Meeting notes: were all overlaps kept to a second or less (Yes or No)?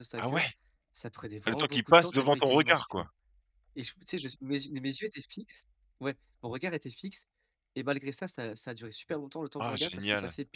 No